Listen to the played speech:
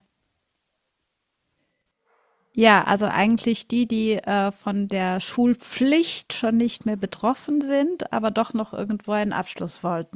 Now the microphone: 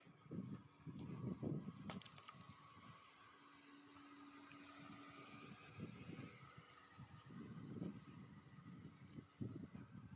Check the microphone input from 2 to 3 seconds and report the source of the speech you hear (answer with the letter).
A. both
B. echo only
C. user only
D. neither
D